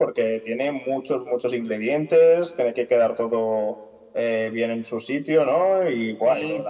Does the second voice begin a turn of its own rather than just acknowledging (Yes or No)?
No